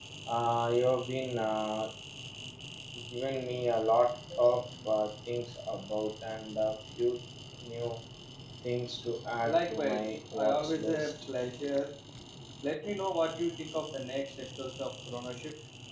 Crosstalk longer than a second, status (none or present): present